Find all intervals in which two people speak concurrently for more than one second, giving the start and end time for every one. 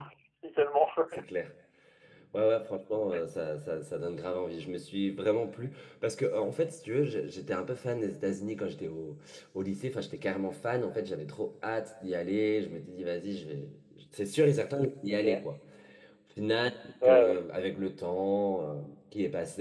none

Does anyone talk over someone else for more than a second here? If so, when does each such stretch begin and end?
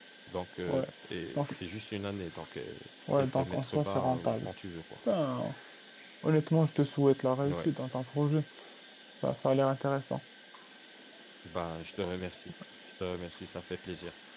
3.2-4.5

